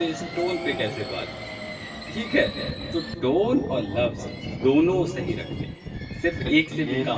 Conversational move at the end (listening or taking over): taking over